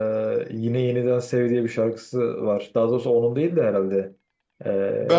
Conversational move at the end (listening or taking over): taking over